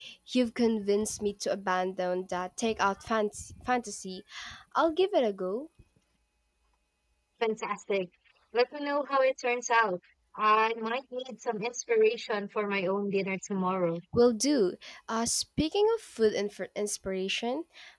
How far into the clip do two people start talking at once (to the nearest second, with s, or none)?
none